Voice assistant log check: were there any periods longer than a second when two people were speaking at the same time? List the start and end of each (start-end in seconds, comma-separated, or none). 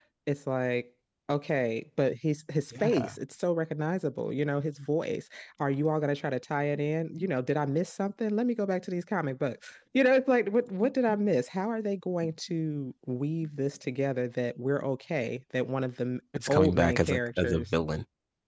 16.5-17.7